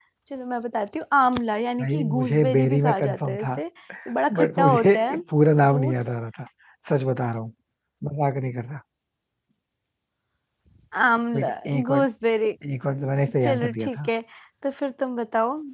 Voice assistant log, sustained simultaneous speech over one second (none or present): present